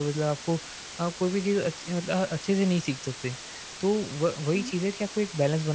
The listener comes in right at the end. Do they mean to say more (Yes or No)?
No